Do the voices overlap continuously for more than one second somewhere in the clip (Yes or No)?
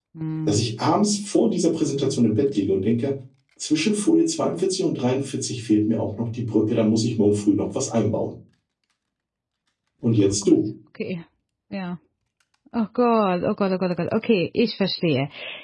No